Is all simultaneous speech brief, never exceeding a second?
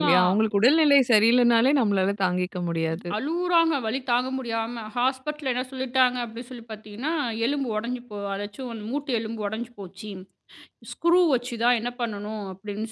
Yes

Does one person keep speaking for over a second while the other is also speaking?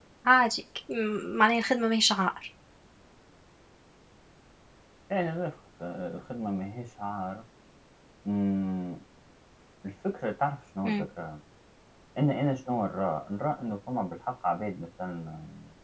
No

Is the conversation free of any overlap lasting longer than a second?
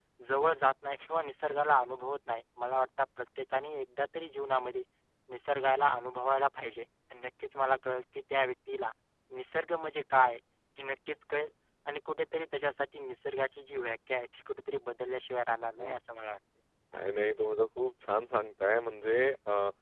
Yes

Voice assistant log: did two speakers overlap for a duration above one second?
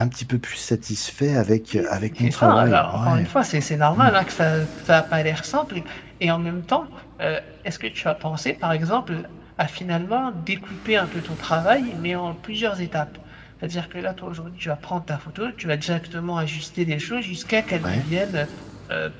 Yes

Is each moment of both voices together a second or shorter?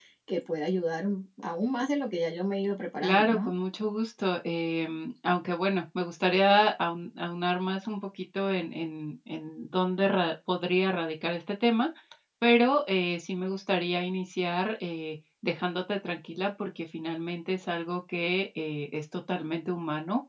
Yes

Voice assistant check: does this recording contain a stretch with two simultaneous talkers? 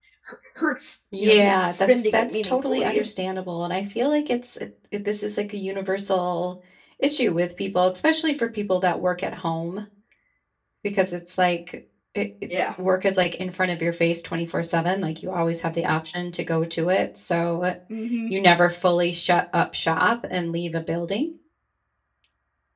Yes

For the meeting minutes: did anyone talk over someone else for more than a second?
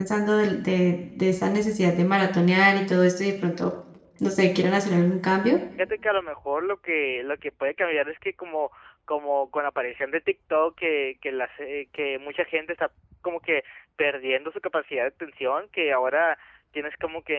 No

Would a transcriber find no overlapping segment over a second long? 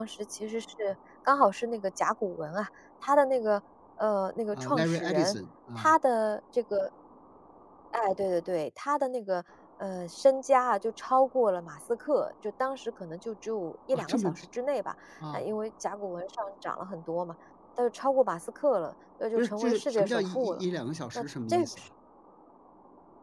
No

